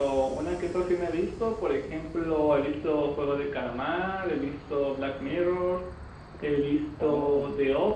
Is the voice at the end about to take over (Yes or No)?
No